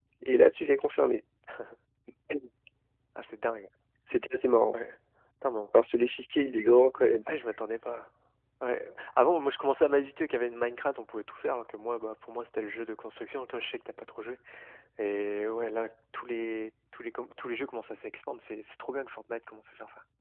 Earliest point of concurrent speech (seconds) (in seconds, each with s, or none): none